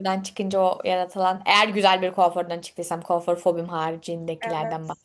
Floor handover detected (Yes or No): Yes